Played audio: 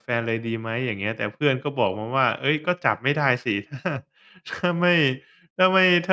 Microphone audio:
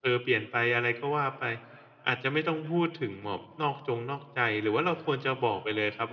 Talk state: user only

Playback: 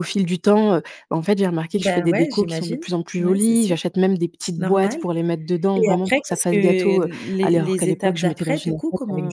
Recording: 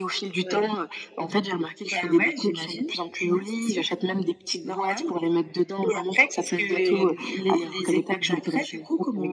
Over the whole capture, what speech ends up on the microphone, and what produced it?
both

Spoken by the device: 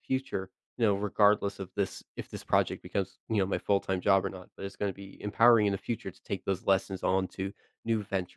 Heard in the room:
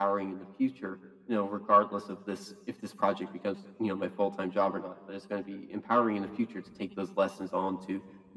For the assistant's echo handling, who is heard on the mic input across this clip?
echo only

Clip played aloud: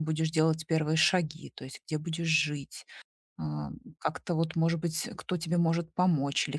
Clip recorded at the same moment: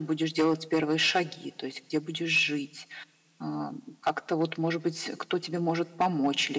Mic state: echo only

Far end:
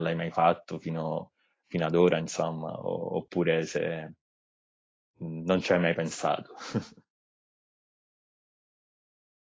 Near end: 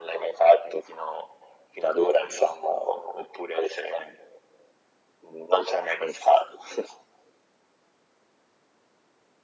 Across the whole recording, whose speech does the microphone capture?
echo only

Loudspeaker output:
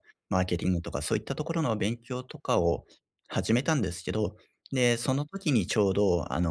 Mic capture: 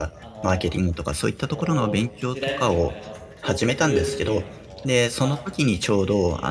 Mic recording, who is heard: both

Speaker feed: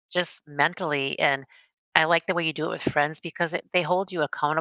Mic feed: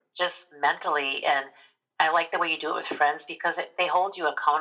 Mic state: echo only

